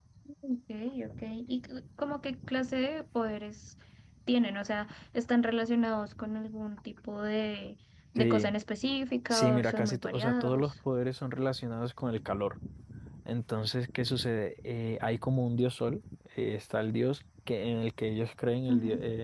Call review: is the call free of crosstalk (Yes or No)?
No